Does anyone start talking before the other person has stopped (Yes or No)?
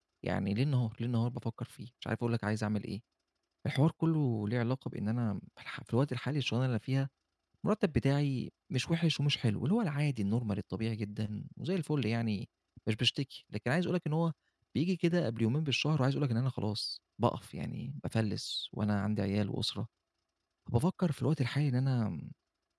No